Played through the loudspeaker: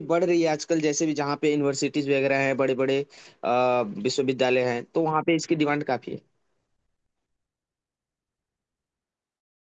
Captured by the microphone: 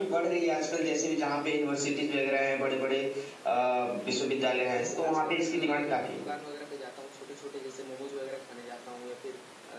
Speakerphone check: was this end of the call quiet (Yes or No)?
No